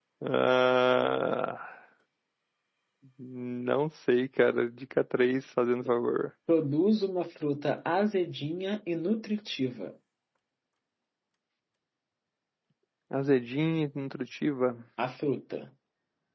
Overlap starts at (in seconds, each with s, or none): none